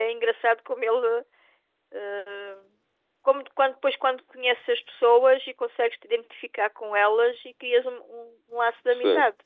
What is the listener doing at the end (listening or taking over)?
taking over